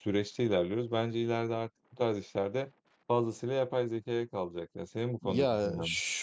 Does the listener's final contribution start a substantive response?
Yes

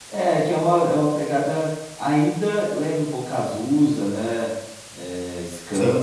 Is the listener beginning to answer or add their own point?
No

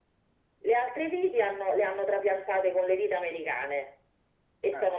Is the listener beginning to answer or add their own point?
No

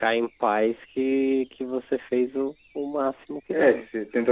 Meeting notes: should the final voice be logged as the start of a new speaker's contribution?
Yes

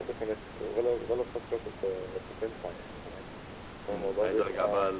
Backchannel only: No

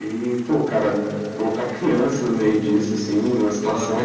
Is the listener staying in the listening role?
Yes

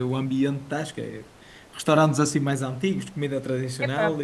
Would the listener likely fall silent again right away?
No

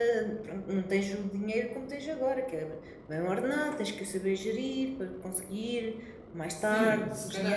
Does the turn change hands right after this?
Yes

